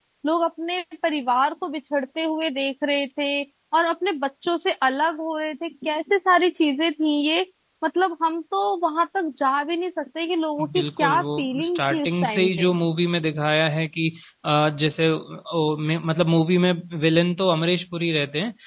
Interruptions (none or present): present